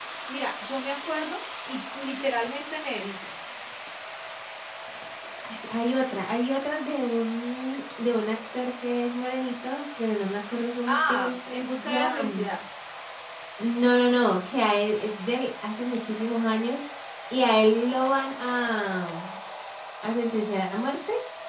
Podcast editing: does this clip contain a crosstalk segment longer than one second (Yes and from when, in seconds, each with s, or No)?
Yes, from 10.9 s